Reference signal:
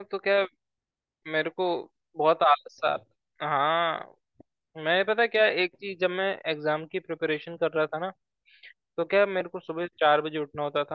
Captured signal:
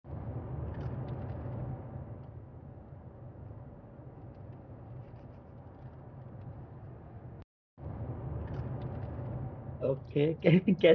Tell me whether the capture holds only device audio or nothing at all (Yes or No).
No